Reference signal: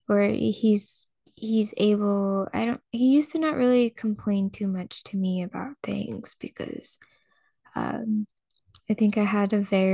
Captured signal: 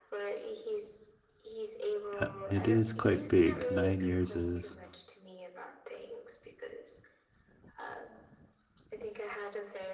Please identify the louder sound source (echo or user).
user